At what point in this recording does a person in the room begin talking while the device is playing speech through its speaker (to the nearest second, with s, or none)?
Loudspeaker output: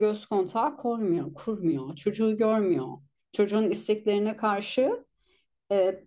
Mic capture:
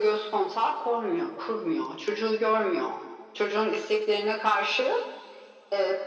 none